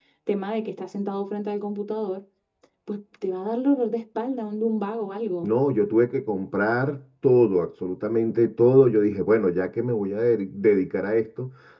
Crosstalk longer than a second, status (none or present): none